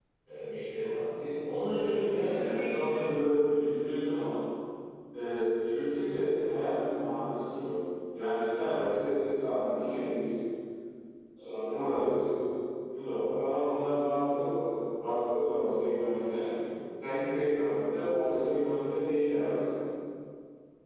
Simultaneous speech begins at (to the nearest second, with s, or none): 2 s